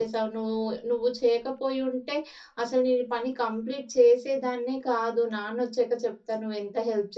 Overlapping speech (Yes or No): No